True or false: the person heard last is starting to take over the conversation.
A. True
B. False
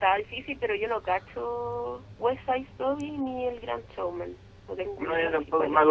A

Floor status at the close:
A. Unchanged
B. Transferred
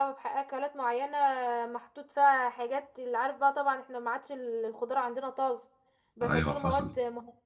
A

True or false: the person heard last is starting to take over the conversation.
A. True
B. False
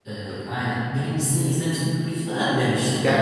B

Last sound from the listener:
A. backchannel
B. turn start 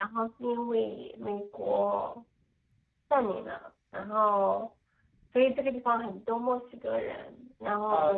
B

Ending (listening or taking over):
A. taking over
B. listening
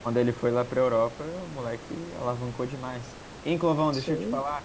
B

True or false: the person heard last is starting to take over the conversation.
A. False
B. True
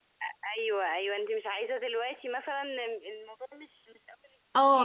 B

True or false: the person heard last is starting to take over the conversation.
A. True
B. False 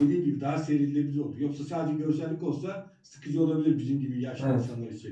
A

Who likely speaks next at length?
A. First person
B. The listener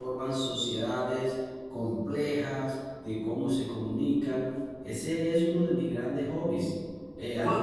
B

